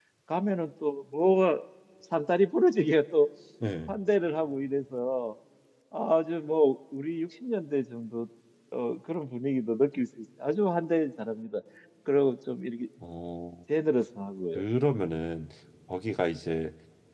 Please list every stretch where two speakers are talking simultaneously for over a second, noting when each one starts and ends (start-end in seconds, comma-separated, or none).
none